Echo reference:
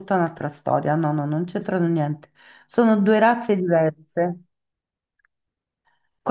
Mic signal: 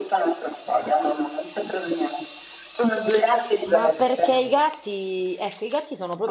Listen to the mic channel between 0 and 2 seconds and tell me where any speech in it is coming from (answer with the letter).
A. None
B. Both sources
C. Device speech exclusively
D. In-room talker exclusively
C